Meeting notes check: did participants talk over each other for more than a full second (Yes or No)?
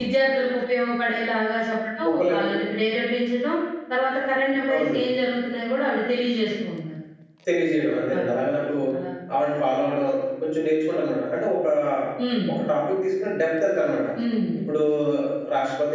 No